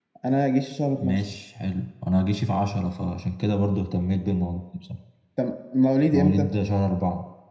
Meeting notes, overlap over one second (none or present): none